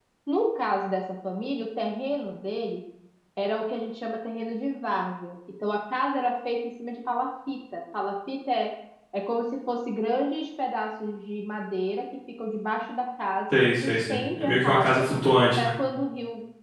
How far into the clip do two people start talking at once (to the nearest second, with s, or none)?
14 s